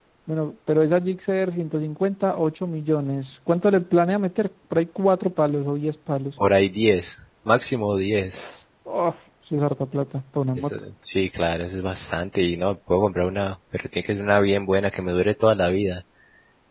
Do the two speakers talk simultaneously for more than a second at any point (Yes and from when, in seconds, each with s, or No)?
No